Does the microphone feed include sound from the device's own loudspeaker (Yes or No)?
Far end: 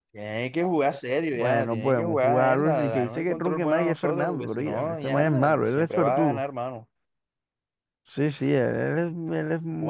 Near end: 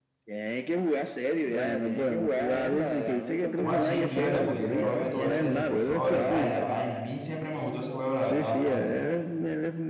Yes